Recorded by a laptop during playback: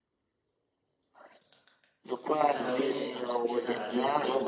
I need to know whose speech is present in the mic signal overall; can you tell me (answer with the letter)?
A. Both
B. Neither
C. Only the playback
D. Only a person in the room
A